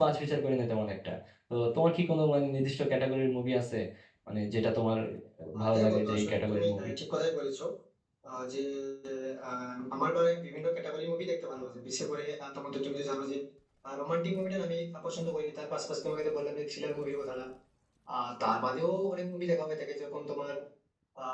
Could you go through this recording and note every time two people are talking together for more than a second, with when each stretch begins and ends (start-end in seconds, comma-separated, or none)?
5.6-6.9